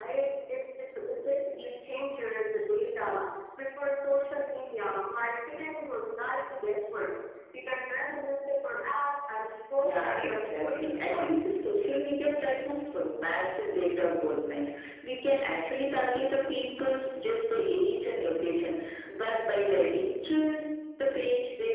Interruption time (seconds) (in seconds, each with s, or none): 9.8 s